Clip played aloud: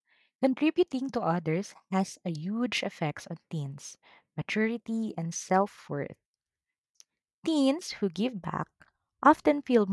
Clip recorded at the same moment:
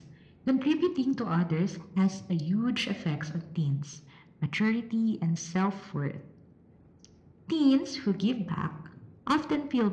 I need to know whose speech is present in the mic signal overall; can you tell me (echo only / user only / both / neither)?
echo only